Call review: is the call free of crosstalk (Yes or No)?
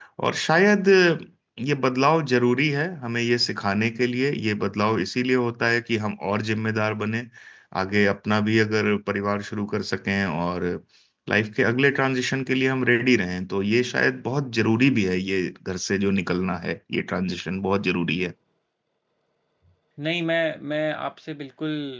Yes